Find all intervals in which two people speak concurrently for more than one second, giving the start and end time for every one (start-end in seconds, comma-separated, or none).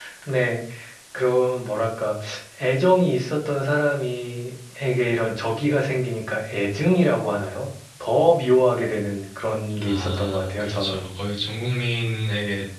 9.8-11.1